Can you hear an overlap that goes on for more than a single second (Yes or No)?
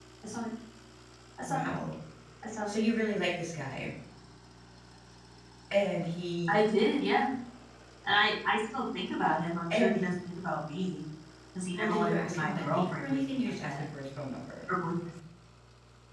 Yes